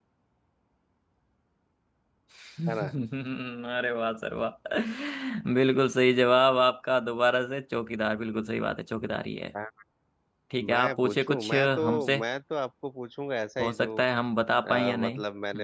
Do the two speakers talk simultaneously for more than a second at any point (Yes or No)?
Yes